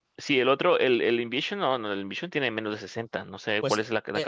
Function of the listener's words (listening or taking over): taking over